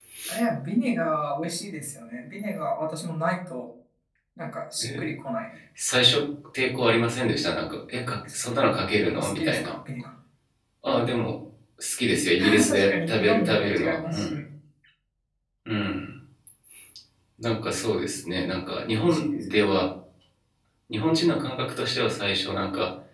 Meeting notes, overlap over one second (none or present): present